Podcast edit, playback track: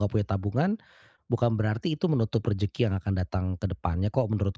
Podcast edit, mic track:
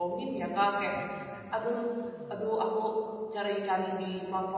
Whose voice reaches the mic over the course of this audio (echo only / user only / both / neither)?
user only